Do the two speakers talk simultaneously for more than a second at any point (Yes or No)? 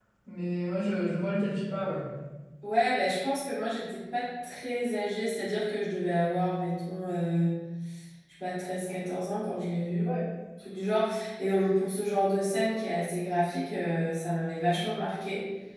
No